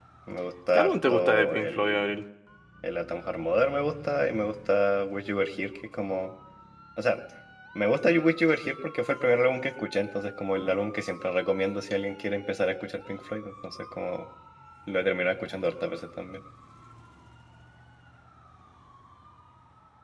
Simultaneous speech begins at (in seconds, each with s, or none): 0.7 s